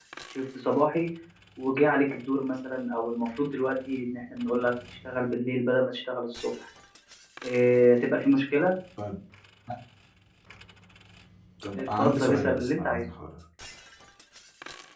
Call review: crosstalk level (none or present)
present